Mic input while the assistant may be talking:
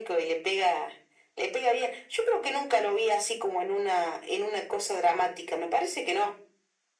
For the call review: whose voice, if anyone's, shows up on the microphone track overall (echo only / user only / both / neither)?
echo only